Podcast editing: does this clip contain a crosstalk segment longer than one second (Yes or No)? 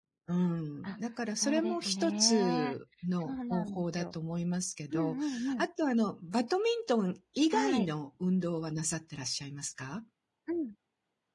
Yes